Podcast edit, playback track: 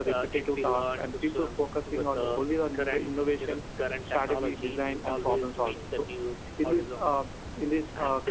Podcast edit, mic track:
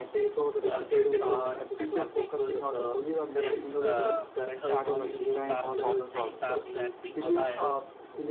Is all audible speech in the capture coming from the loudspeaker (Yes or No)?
No